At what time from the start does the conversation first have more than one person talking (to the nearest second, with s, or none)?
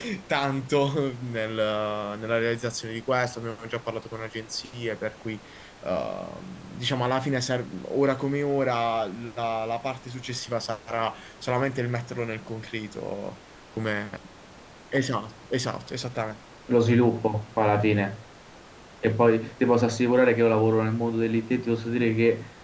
none